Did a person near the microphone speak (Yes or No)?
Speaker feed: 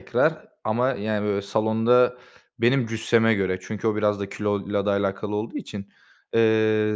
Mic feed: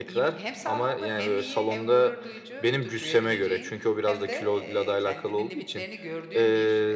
Yes